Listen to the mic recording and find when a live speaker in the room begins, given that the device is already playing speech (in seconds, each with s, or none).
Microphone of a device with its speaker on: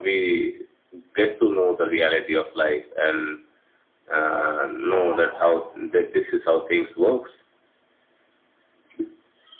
4.8 s